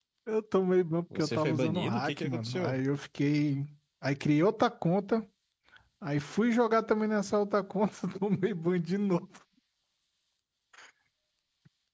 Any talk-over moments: Yes, from 1.2 s

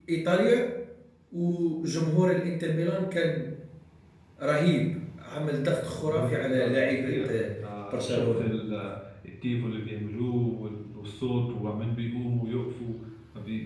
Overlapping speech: Yes, from 5.7 s

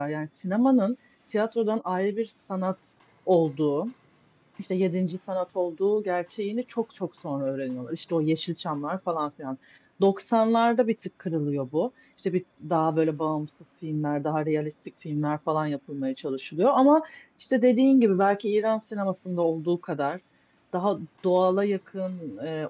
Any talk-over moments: No

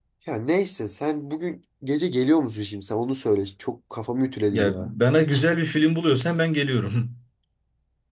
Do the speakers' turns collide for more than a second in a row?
No

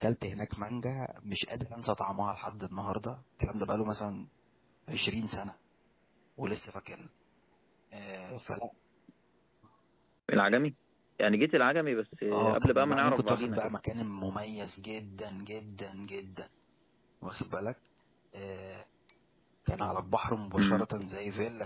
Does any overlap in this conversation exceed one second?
Yes, from 12.3 s

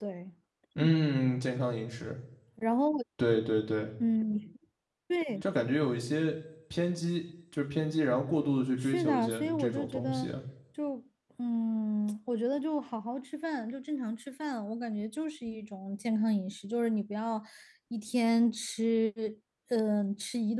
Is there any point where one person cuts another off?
Yes, from 8.8 s

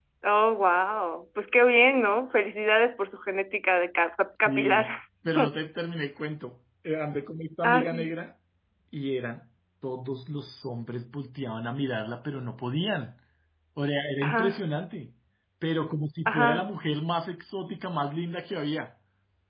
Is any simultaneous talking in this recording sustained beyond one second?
No

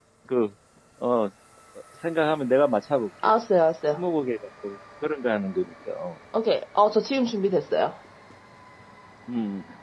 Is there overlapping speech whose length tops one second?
No

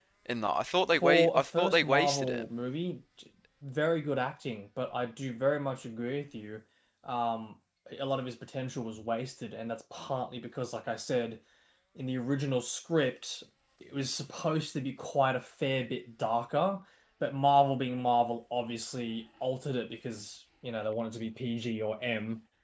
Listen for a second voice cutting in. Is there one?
Yes, from 1.0 s

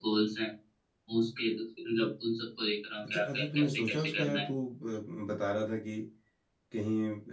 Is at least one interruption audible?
Yes, from 3.0 s

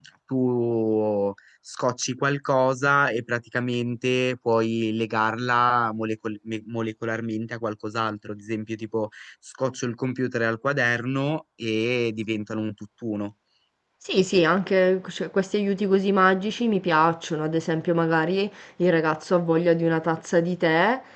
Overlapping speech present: No

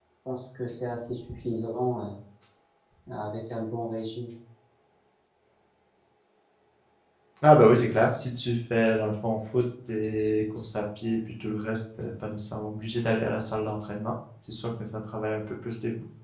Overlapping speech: No

